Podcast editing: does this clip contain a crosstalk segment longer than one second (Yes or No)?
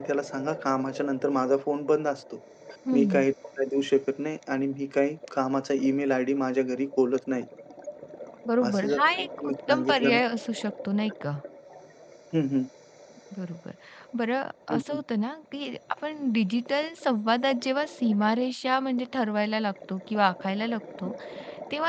Yes